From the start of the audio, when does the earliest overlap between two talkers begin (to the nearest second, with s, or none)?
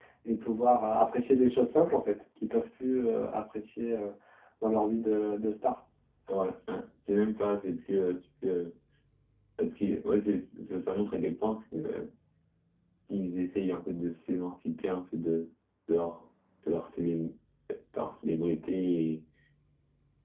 none